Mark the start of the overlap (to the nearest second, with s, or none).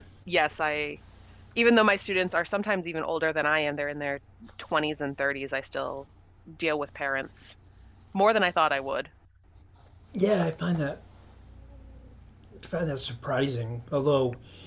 none